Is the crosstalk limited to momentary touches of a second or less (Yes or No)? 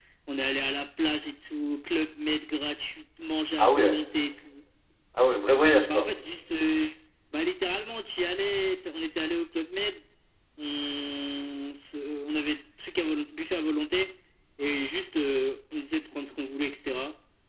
Yes